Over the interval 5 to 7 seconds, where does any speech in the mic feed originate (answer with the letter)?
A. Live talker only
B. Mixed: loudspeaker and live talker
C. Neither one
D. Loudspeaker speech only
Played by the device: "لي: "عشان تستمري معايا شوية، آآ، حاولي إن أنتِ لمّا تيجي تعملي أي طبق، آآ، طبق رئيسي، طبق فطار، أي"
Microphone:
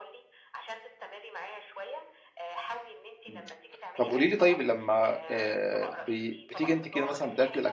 B